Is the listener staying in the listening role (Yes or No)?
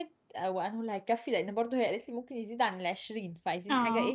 No